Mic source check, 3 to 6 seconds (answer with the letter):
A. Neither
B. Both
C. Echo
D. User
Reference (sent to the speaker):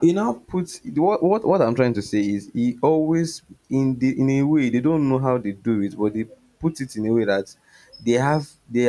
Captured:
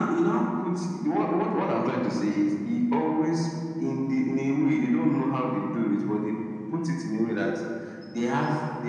C